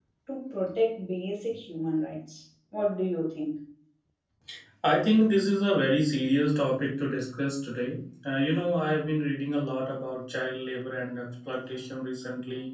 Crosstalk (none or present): none